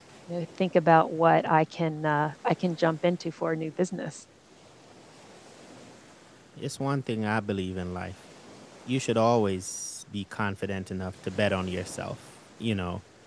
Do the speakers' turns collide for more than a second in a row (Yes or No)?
No